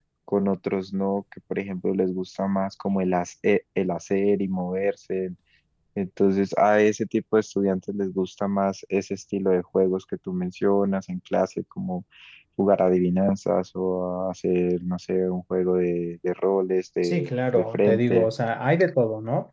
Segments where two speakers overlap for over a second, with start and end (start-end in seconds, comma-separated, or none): 17.0-18.3